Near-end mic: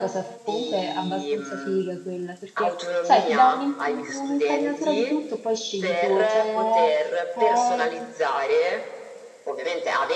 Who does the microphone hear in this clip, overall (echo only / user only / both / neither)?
both